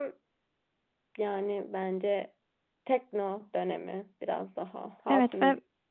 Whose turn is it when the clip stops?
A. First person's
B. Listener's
B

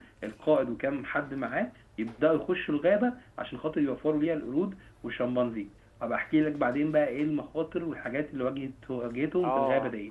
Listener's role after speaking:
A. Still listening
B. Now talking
B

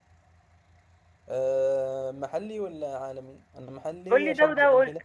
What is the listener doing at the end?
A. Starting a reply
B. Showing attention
A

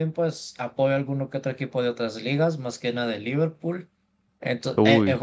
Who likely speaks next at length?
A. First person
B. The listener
A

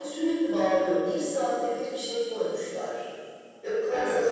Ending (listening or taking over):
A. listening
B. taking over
A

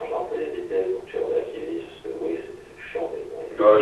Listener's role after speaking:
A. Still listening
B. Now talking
B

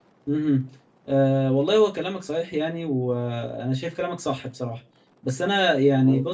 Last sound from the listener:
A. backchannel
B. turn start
A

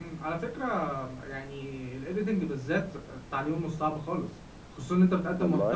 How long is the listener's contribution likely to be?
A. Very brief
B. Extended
A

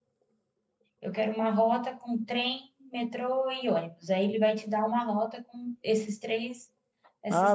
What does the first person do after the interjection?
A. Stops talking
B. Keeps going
A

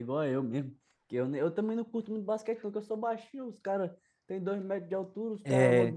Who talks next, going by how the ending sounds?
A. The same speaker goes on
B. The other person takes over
A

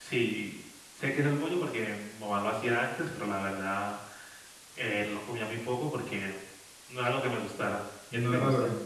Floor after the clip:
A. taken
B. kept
A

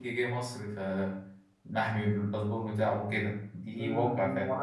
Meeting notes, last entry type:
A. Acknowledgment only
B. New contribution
B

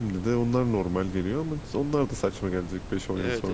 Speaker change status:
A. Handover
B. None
A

